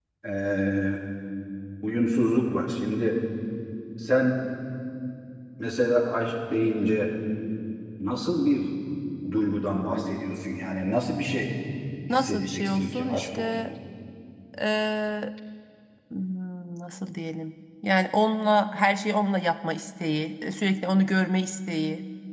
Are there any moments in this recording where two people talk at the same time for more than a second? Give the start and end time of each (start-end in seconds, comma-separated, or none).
12.1-13.7